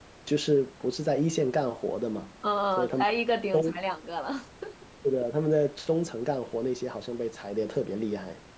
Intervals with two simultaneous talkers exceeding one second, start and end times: none

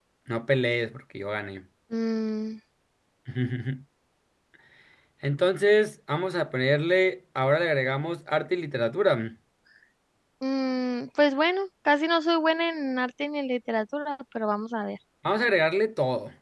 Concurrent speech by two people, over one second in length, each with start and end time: none

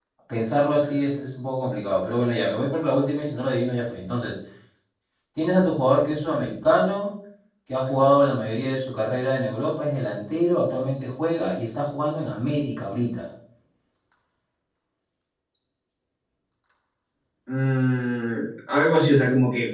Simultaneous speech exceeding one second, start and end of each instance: none

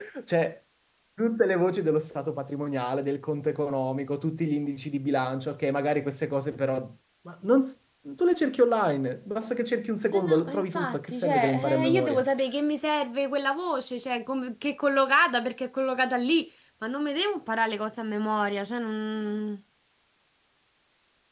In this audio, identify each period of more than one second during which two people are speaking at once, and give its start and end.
10.1-12.2

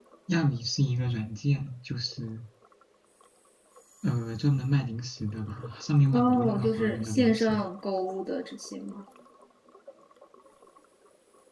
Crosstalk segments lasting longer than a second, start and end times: 6.1-7.6

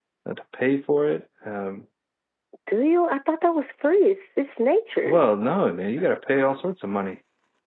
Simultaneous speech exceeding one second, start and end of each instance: none

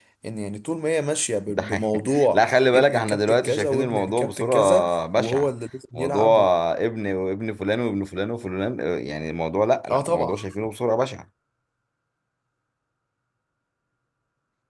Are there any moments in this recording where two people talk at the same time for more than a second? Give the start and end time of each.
1.5-5.5

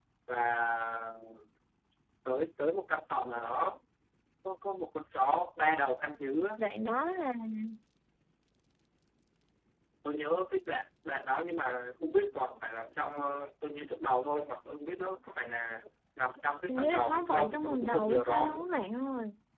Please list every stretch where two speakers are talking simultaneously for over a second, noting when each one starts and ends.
16.7-18.7

